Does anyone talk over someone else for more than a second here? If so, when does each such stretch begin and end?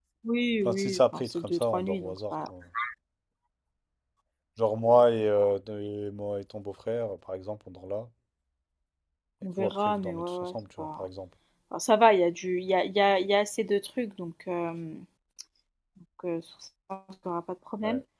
0.7-2.5, 9.6-11.0

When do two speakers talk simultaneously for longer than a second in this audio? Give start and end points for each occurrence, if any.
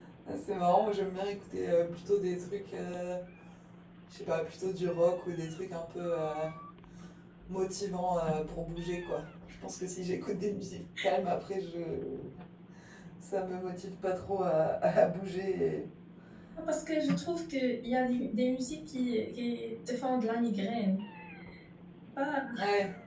none

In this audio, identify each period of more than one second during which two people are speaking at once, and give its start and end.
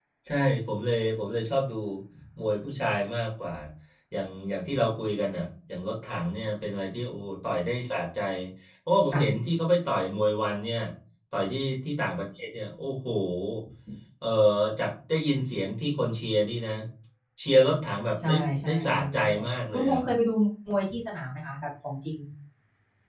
18.2-20.0

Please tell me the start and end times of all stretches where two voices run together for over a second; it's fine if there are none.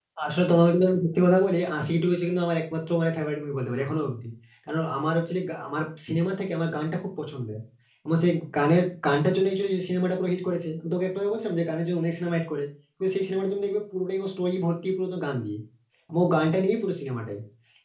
none

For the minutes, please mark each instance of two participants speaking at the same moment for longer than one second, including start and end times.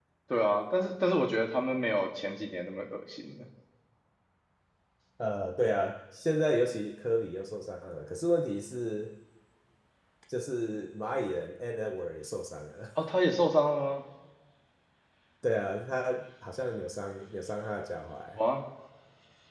none

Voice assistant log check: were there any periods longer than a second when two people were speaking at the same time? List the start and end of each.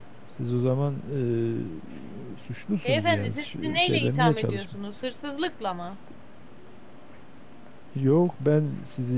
2.8-4.7

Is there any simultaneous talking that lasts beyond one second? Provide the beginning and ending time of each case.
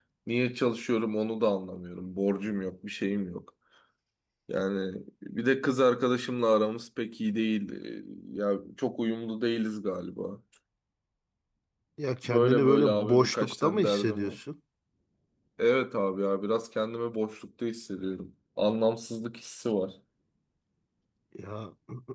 12.2-14.4

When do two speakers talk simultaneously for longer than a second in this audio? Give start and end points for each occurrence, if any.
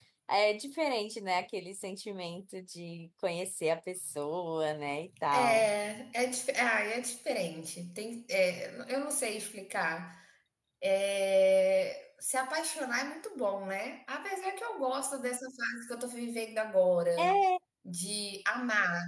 none

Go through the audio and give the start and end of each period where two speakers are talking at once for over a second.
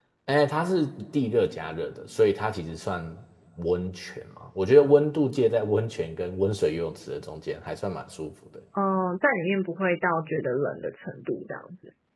none

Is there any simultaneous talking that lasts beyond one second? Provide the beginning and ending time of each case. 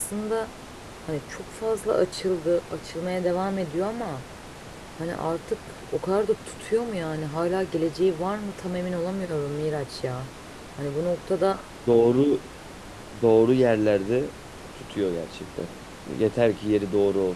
none

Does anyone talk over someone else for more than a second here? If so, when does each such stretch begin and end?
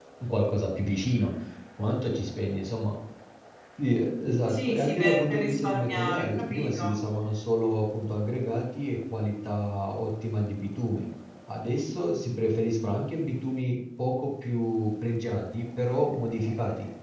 4.5-6.9

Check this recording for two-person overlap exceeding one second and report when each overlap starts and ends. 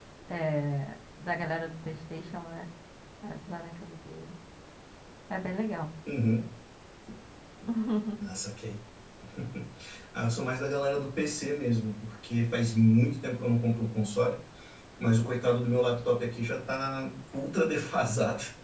none

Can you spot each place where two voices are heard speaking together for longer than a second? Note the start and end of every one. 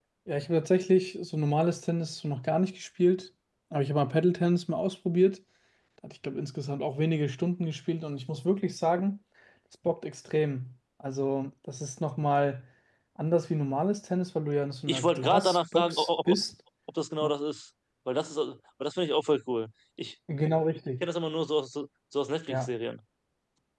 14.9-16.4

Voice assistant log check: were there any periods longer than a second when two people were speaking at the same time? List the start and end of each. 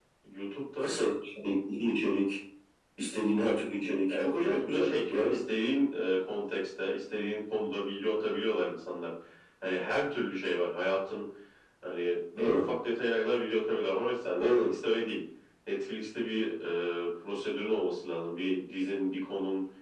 4.1-5.4

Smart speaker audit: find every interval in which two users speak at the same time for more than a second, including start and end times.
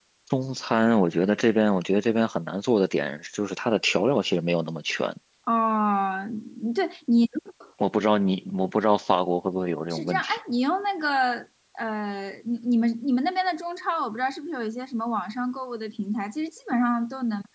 none

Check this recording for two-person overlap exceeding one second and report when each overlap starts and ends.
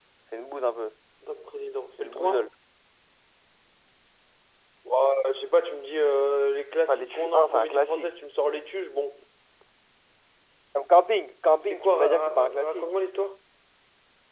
6.9-8.1, 11.6-12.9

